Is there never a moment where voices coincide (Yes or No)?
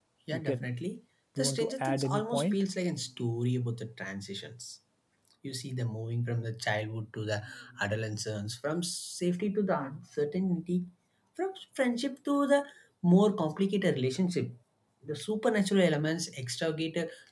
No